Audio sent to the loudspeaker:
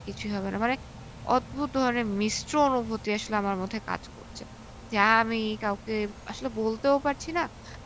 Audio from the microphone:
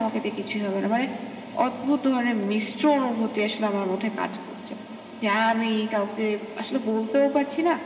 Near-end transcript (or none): none